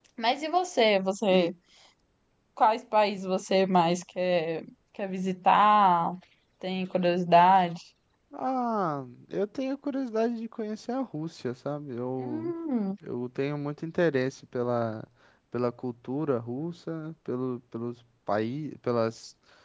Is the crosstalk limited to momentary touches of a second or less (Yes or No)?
Yes